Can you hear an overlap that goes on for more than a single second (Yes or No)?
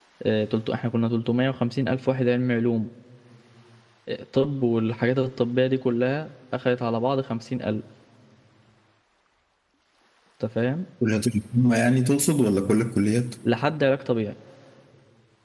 No